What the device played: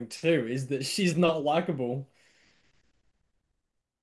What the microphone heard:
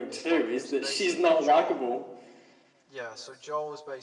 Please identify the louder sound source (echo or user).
echo